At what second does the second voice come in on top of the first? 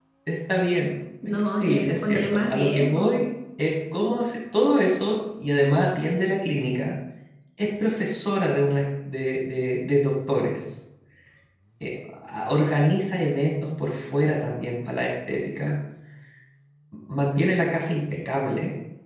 1.4 s

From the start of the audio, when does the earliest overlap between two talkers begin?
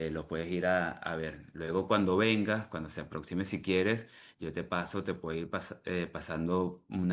none

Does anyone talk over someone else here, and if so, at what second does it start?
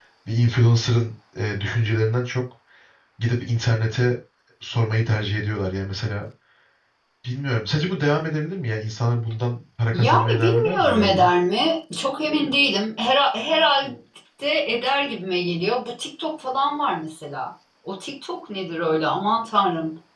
9.9 s

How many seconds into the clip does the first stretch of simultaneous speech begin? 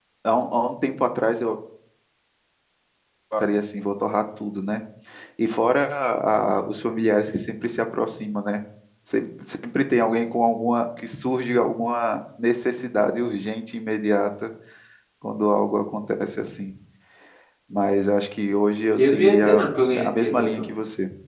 19.0 s

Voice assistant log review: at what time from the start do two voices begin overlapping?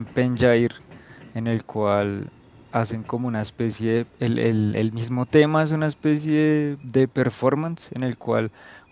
none

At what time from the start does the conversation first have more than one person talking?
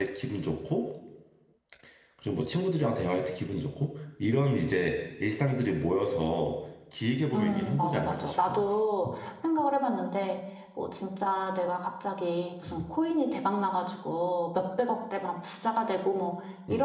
7.3 s

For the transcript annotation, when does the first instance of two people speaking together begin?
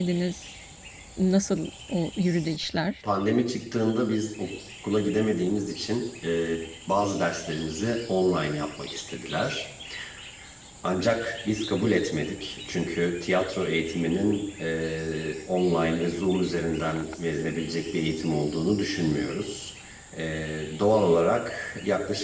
none

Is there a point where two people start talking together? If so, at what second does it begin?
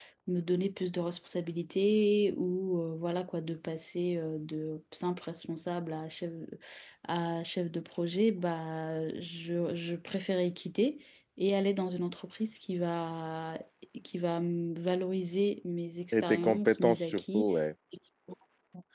16.1 s

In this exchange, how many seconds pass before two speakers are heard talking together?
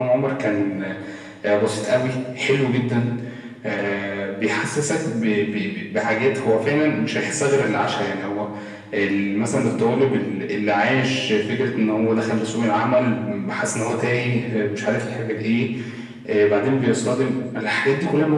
none

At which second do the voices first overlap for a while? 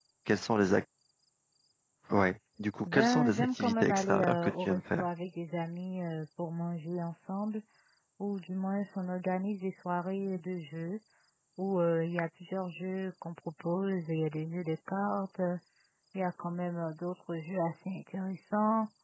2.9 s

